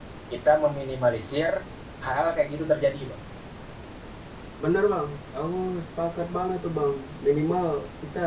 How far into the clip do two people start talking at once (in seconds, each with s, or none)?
none